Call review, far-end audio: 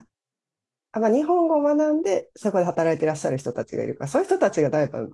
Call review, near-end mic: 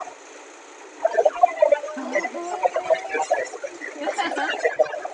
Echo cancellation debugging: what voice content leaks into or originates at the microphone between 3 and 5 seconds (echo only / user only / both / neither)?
both